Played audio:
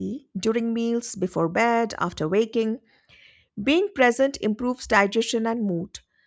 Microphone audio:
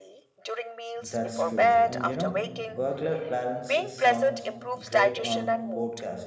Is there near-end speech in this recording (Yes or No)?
Yes